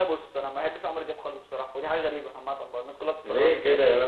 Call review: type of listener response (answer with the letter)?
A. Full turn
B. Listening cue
A